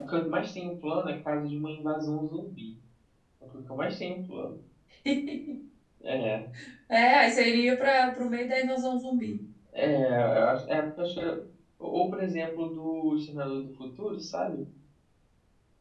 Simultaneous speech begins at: none

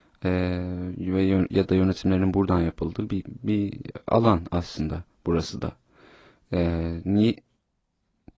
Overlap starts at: none

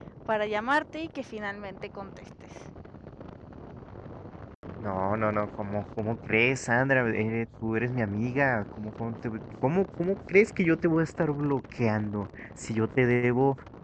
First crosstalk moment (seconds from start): none

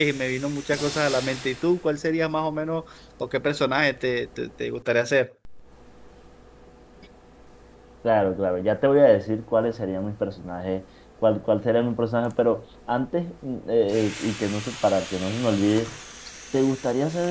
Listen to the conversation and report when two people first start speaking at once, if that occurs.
none

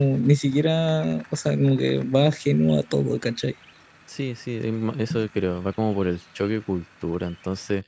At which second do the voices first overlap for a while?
none

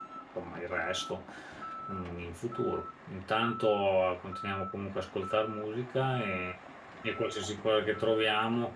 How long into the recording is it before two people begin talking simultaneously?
none

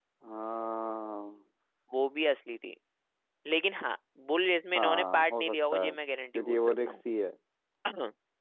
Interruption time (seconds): 5 s

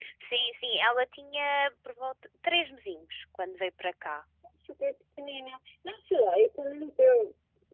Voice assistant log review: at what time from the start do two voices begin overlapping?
none

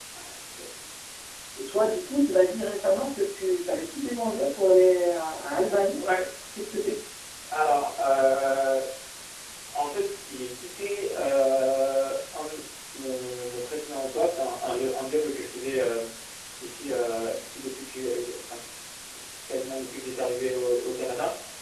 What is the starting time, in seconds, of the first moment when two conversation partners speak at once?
none

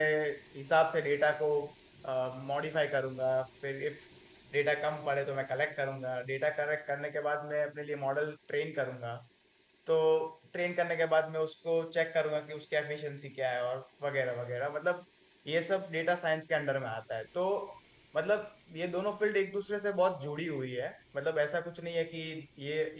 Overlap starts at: none

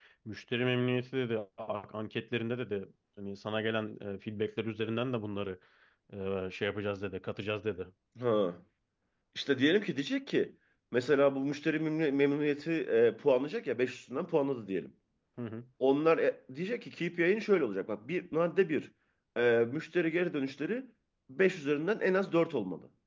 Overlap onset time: none

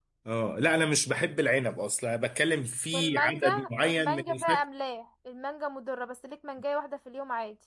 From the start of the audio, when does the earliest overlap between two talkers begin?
3 s

